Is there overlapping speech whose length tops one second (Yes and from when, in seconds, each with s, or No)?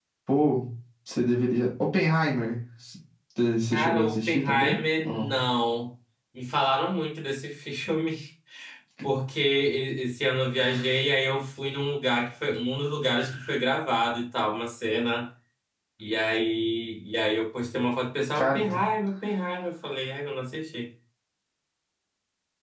Yes, from 3.7 s